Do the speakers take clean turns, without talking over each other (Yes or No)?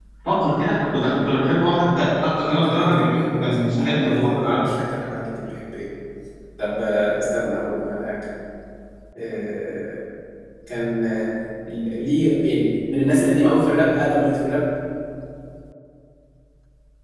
No